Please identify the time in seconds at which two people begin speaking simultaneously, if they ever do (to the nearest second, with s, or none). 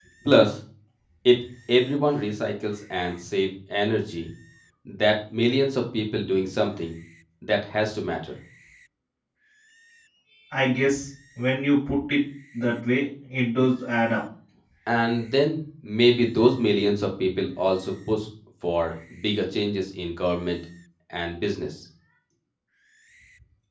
none